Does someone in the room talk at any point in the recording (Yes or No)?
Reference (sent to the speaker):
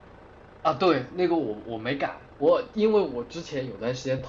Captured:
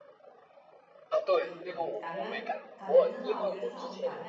Yes